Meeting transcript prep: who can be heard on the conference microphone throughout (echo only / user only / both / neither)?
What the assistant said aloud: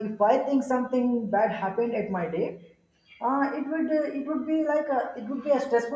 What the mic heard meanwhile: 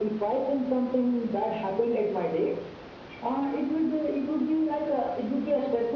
echo only